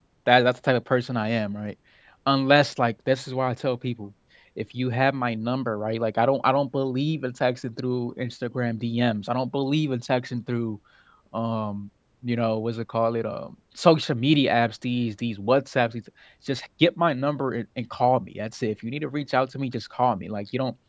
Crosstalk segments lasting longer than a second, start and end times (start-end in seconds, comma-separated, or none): none